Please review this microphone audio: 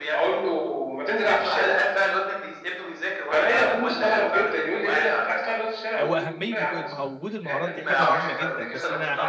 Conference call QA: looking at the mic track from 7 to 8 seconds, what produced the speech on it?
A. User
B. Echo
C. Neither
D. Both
D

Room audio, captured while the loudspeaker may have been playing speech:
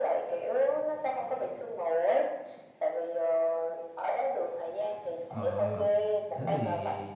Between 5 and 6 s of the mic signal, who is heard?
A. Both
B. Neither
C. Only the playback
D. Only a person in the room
A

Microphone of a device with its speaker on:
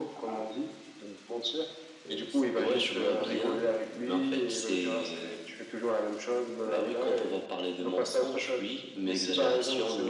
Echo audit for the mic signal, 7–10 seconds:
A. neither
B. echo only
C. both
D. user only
B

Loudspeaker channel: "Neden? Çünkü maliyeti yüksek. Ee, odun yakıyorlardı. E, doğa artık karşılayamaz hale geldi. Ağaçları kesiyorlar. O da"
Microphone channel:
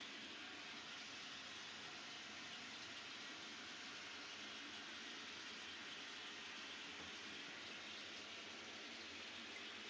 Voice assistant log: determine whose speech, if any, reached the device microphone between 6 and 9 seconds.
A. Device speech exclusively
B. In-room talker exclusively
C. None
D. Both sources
C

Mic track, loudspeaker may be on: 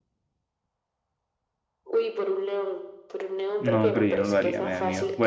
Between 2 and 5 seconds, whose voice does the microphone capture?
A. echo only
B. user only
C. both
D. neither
C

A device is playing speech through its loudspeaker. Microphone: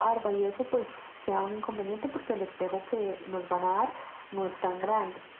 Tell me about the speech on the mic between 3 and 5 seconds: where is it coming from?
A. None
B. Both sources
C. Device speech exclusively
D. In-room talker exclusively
C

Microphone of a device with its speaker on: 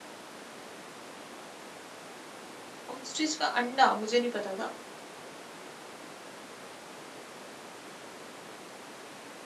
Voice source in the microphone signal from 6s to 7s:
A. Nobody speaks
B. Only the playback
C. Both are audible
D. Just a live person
A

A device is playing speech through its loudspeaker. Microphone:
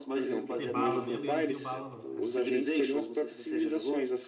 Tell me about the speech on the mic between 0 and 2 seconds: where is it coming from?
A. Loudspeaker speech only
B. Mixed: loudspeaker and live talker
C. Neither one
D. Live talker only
B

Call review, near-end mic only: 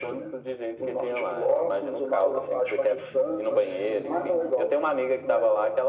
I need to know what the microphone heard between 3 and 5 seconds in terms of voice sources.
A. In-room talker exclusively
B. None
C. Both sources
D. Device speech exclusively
C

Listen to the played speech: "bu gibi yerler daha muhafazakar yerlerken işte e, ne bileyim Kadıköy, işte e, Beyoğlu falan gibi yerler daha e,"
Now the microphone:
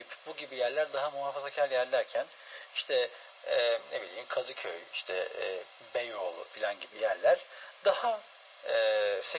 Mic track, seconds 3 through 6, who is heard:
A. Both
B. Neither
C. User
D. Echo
D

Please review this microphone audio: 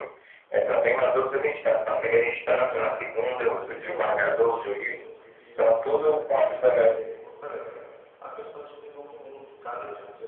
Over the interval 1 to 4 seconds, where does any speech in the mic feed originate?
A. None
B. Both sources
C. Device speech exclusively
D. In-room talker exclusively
B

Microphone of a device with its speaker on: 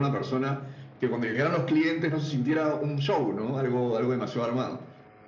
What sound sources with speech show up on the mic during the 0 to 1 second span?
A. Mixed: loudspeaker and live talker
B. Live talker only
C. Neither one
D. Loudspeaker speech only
D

